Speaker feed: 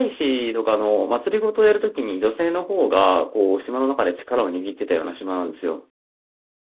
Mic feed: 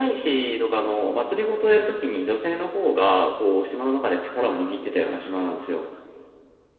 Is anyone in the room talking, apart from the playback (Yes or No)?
No